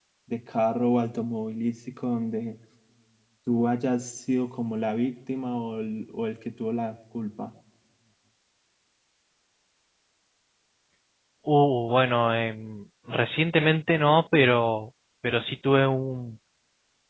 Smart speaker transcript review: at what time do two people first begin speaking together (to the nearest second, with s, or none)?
none